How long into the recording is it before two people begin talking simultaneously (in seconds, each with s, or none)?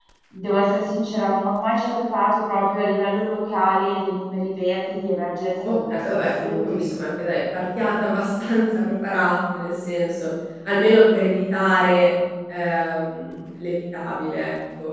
5.6 s